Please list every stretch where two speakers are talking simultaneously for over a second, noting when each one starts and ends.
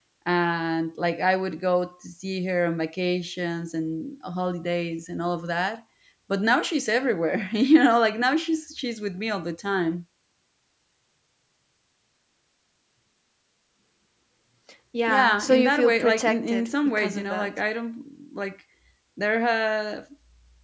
15.1-17.6

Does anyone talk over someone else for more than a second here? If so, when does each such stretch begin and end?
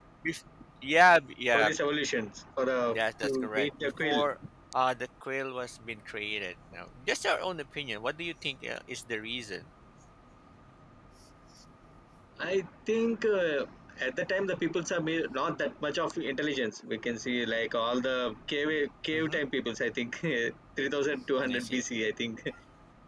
2.9-4.2

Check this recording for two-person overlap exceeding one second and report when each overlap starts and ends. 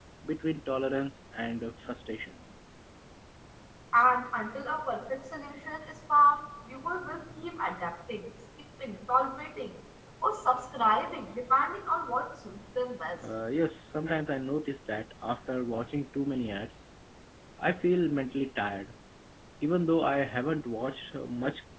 none

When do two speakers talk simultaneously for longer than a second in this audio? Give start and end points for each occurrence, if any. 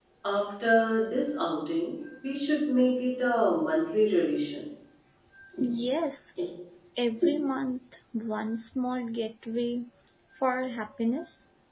none

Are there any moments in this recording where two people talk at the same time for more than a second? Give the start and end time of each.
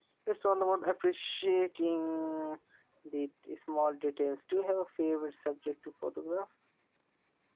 none

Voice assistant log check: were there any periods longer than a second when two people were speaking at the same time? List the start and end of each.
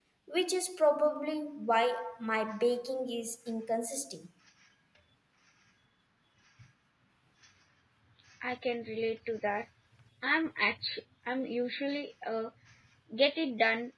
none

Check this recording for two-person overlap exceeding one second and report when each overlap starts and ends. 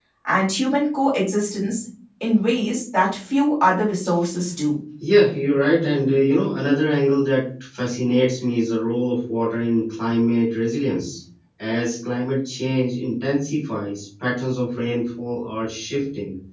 none

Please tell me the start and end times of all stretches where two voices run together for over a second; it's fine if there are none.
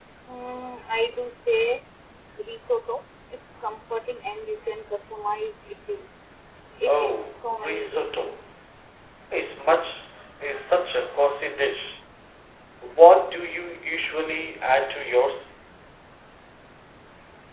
6.9-8.1

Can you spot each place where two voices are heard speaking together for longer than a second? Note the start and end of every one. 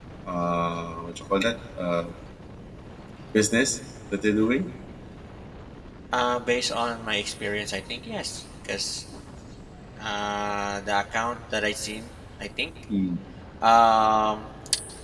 none

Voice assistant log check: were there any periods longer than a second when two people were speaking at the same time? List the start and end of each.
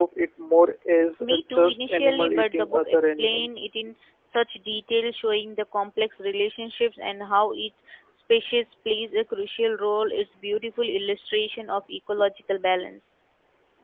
1.2-3.5

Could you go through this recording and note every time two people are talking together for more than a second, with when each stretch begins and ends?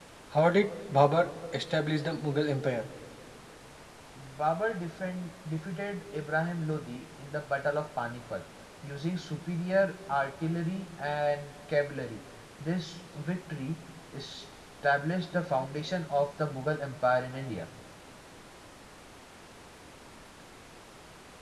none

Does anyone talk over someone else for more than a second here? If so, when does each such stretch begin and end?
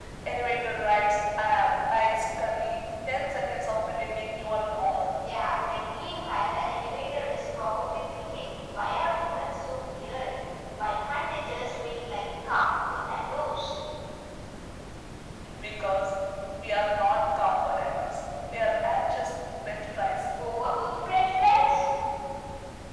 none

